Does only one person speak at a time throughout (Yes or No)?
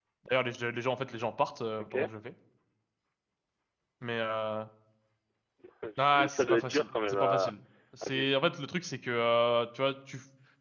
No